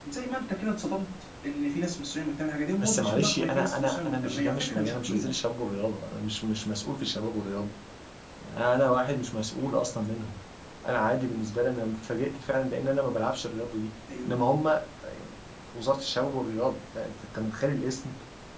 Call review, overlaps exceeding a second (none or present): present